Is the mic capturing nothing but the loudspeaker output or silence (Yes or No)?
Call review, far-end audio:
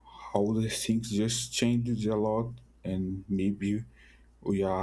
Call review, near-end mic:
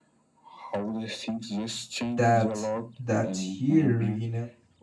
No